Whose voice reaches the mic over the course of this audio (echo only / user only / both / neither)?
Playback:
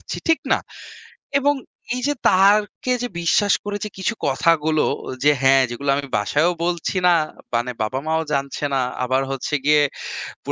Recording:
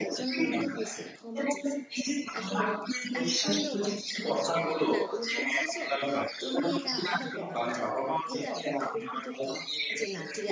both